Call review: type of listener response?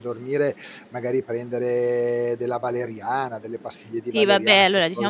taking over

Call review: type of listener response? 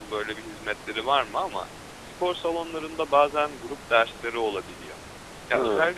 listening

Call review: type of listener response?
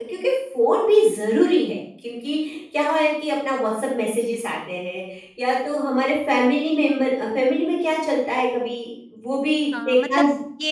taking over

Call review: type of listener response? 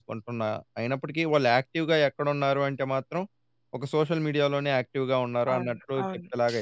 taking over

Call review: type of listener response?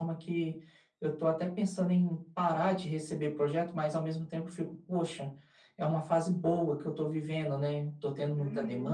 taking over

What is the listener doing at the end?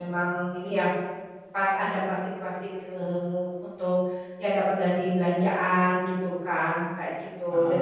listening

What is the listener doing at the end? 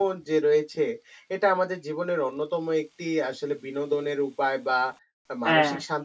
listening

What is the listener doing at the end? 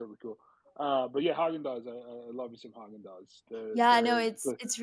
taking over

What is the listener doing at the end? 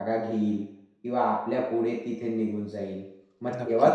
listening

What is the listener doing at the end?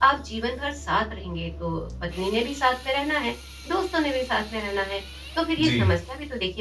listening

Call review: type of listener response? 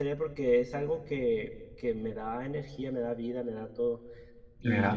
listening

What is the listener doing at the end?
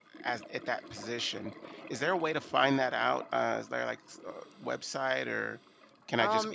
taking over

